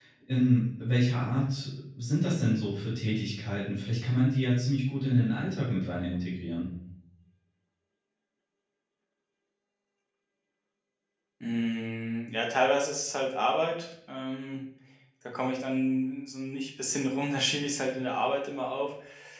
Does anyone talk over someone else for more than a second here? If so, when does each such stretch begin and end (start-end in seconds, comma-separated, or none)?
none